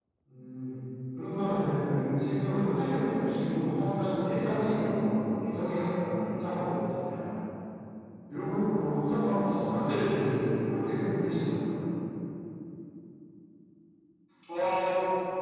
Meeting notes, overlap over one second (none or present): none